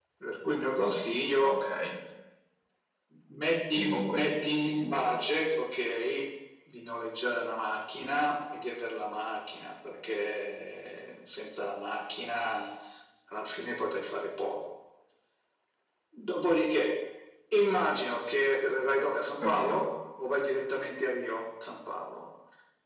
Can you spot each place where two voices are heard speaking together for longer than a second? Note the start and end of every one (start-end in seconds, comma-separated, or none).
3.8-5.2